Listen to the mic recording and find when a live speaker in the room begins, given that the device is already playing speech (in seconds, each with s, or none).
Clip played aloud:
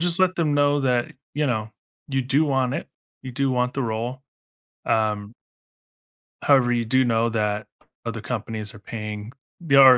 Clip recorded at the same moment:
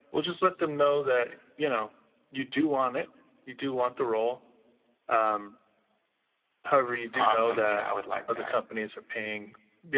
7.1 s